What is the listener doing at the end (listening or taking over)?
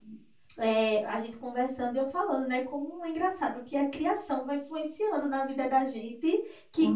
listening